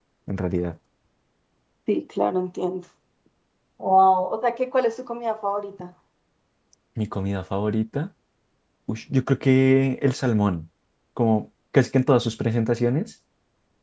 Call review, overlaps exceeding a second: none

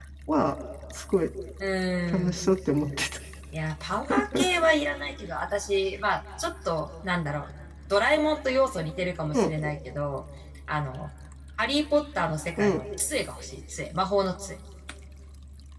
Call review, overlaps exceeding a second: none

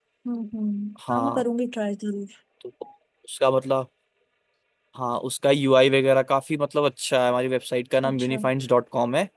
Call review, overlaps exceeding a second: none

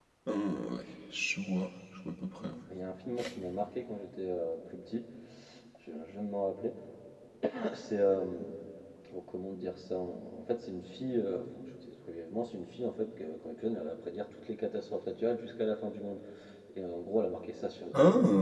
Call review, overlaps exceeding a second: none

